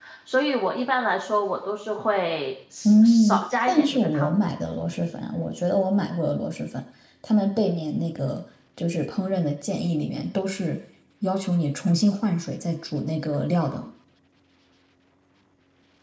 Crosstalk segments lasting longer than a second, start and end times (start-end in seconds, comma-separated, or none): 2.8-4.5